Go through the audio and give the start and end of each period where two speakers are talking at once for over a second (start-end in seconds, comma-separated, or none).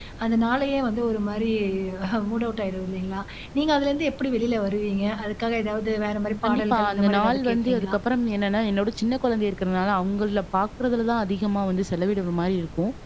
6.4-8.0